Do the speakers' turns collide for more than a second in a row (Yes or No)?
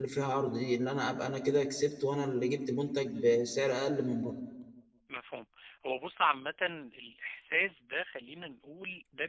No